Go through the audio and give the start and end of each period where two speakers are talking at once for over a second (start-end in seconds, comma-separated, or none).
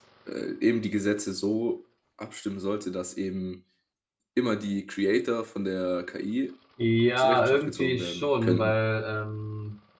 7.2-8.8